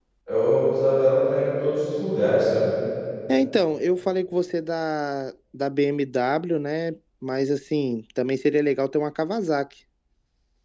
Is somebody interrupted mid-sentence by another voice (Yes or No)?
No